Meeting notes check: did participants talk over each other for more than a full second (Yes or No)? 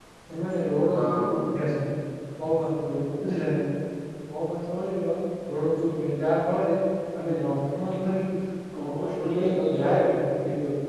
Yes